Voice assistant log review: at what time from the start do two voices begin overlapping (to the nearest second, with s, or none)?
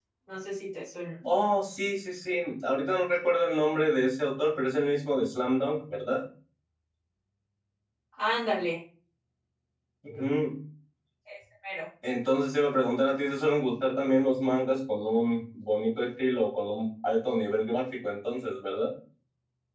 none